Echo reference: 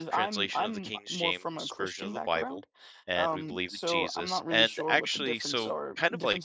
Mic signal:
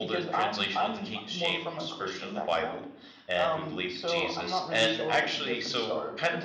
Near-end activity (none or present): none